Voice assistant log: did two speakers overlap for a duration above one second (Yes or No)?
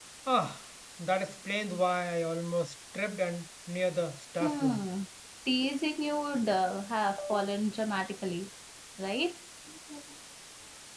No